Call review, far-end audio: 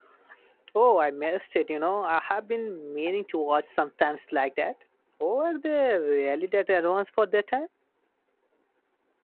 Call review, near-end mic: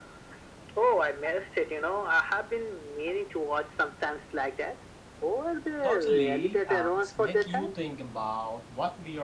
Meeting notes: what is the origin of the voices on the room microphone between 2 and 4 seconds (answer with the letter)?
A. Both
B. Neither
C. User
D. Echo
D